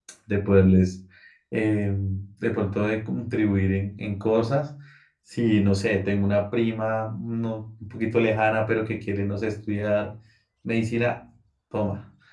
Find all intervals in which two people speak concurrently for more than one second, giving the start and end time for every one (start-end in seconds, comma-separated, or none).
none